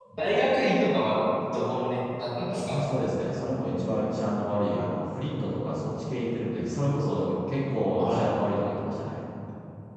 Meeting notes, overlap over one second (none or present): none